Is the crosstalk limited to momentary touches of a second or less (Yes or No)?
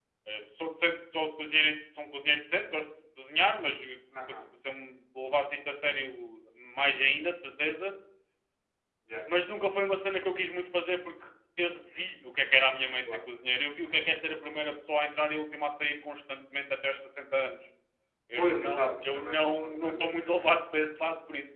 No